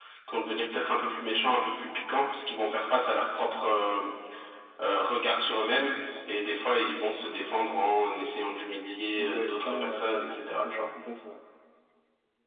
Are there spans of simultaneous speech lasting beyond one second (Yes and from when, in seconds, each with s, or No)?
Yes, from 9.2 s